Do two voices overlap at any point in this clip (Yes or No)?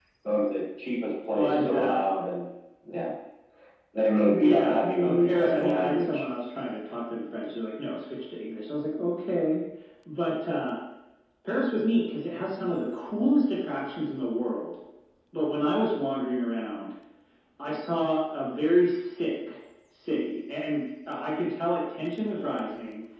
Yes